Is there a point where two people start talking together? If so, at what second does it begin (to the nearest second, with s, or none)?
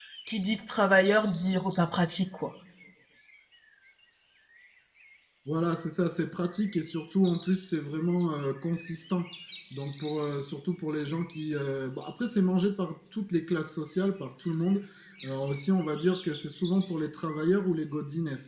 none